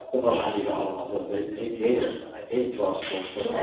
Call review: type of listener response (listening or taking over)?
taking over